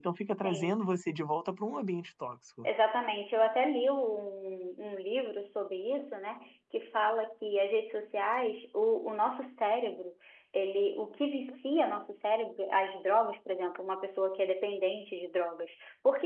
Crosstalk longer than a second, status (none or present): none